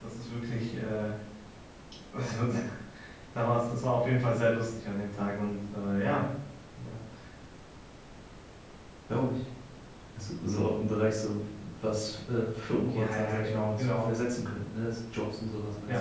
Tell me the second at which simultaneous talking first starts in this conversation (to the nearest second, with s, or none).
13 s